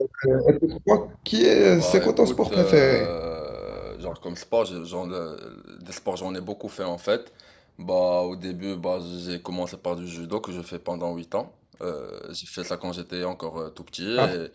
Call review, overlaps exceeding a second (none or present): present